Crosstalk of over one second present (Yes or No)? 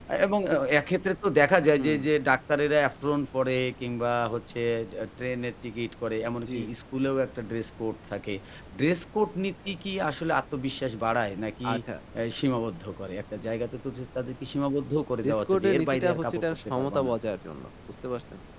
Yes